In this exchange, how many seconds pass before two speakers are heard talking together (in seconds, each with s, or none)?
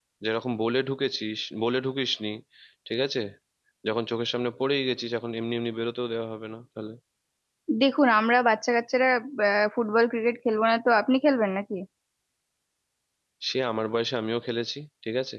none